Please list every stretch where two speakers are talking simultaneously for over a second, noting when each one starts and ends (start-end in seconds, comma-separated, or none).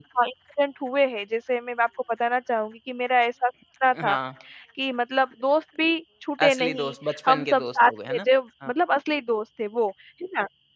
6.4-8.2